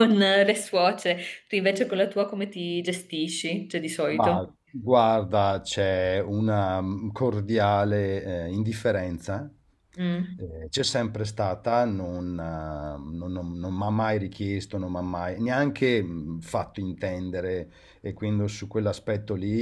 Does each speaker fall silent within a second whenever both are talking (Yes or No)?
Yes